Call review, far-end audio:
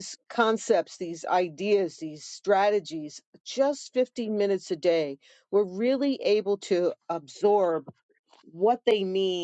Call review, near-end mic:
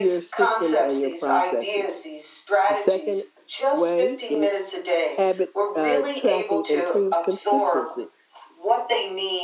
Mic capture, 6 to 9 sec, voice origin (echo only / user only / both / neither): both